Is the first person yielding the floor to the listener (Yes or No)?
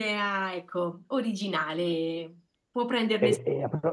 Yes